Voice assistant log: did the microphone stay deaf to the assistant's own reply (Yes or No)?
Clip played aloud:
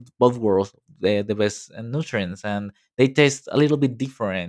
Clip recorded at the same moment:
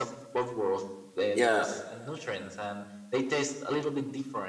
No